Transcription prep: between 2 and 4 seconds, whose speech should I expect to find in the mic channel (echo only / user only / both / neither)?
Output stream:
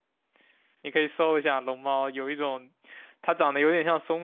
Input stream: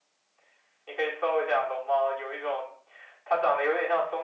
echo only